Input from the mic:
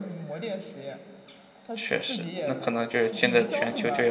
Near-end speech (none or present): present